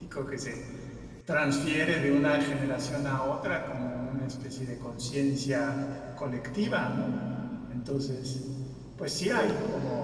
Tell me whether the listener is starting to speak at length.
No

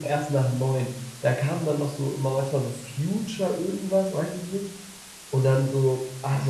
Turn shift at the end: No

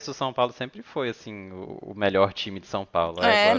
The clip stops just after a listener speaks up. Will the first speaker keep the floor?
No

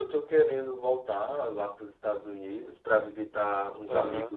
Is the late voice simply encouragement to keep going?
Yes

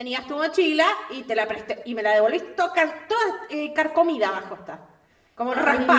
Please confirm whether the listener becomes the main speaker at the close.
Yes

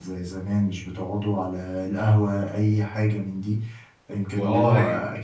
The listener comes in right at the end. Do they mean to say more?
No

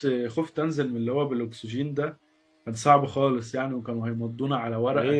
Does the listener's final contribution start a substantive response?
Yes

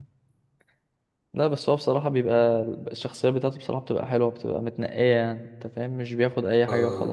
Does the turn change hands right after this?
Yes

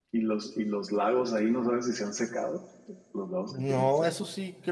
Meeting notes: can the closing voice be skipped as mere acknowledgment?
No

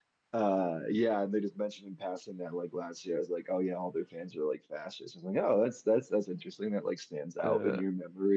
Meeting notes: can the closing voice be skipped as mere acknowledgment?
Yes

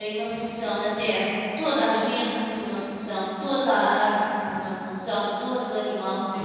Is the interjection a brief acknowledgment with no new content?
No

